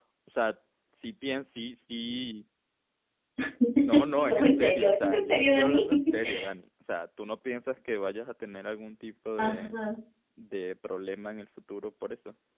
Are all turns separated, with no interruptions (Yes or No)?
No